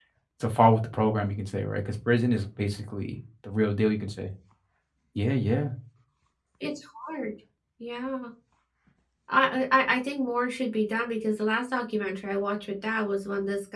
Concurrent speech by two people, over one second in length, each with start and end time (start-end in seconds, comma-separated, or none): none